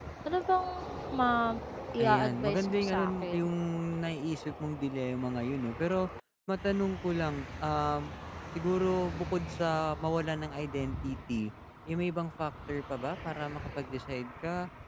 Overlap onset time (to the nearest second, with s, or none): 2 s